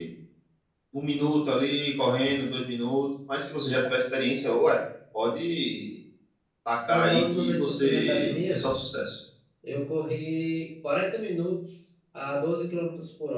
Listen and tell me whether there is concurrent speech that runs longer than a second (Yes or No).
Yes